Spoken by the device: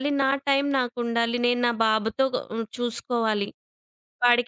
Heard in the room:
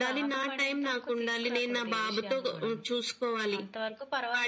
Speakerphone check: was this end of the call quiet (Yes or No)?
No